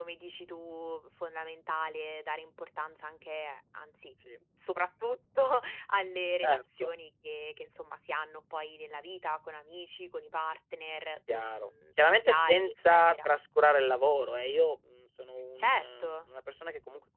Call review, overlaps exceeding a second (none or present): present